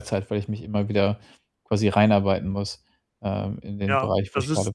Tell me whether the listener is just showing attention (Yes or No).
No